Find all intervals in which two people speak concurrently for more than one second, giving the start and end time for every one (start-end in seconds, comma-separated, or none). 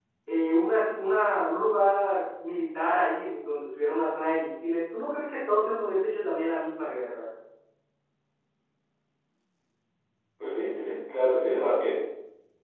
none